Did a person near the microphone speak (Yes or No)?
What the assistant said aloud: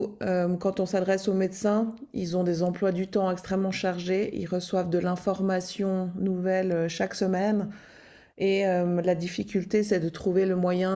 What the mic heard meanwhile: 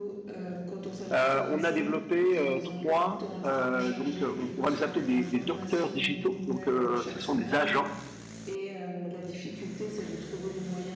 Yes